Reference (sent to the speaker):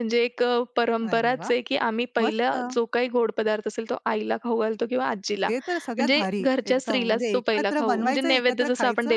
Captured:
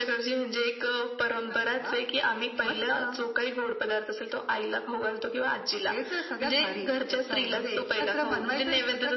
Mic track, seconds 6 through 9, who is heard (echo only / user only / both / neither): echo only